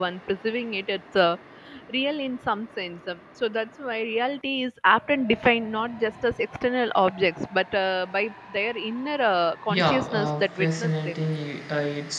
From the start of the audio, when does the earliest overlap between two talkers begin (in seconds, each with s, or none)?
9.7 s